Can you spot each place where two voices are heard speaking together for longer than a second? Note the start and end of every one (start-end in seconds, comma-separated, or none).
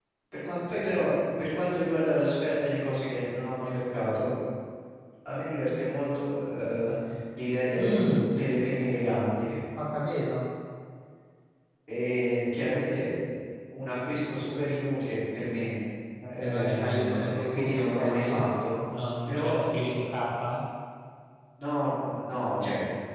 16.4-18.4